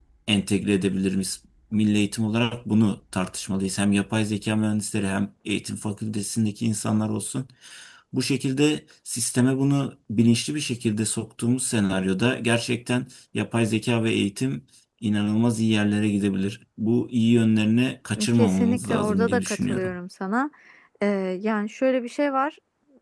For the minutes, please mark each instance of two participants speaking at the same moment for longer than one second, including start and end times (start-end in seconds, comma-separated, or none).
18.3-19.9